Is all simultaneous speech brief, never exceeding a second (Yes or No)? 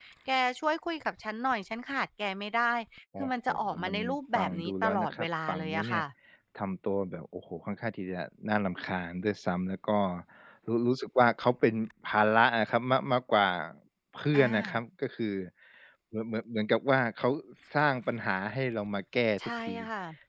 No